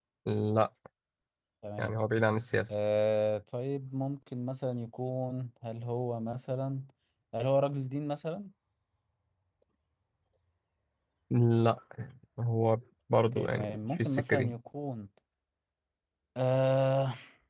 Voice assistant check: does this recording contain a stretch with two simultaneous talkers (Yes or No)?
Yes